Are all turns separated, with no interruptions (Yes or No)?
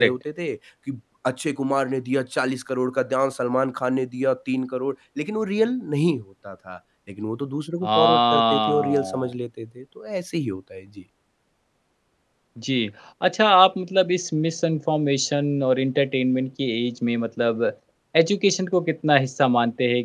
No